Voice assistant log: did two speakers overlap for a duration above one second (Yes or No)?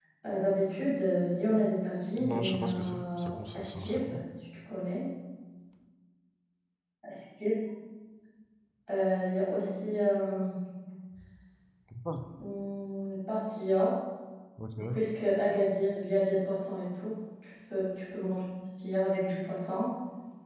Yes